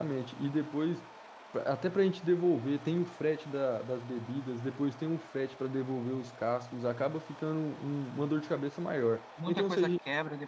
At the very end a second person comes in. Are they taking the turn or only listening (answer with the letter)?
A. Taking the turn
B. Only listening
A